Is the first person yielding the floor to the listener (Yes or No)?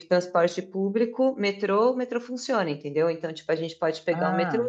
No